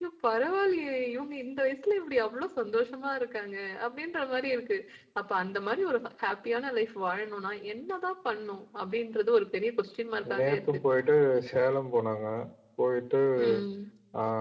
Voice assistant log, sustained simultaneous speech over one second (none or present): none